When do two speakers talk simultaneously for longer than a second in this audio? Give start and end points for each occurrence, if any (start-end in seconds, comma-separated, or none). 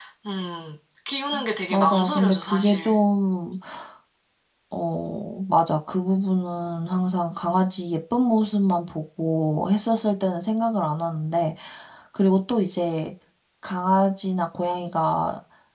1.7-3.0